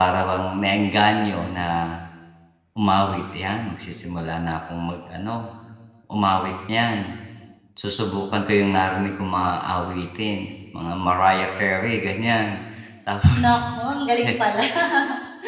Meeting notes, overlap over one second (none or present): none